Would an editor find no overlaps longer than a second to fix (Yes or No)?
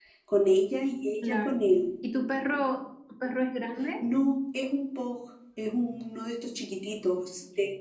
Yes